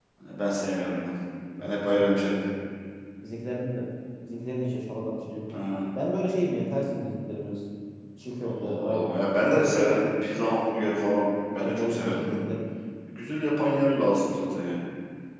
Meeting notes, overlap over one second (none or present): present